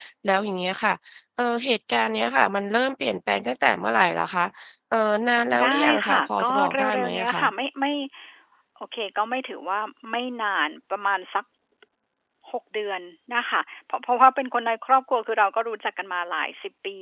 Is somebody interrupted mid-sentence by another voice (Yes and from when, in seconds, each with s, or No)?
Yes, from 5.6 s